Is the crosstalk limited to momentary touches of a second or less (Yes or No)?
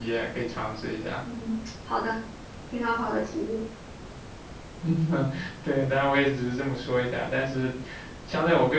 Yes